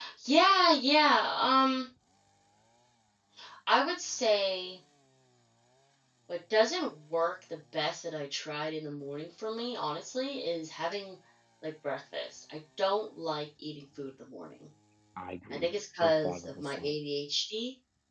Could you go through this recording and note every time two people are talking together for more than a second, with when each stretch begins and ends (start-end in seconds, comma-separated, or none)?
15.5-16.9